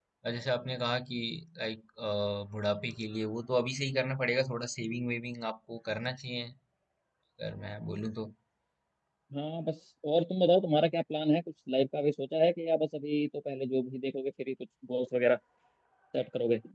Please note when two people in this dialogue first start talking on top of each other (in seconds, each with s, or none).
none